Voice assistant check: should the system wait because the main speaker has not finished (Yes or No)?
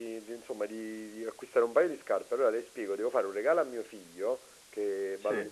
Yes